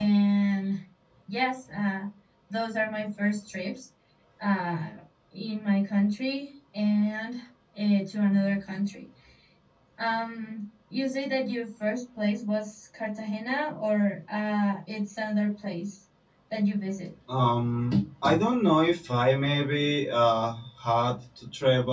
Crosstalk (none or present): none